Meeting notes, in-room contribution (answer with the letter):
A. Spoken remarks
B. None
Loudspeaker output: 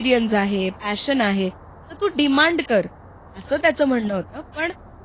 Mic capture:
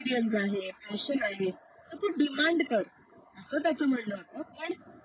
B